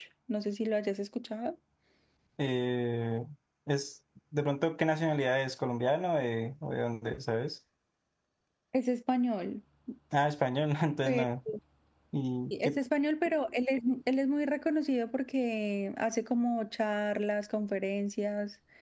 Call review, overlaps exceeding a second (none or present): none